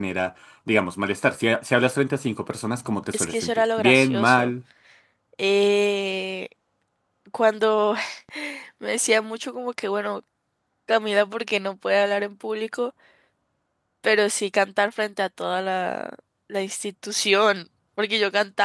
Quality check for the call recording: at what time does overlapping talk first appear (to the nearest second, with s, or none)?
3 s